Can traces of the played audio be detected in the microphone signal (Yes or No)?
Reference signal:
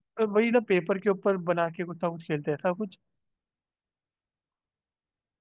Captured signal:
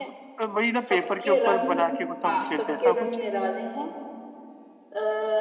Yes